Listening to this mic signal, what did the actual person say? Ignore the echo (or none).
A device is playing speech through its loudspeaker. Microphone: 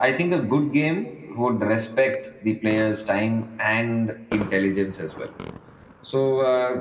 none